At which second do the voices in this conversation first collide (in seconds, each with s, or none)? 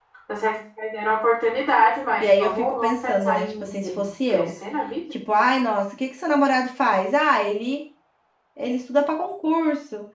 2.2 s